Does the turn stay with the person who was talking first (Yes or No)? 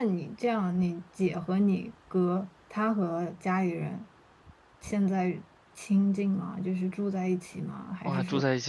No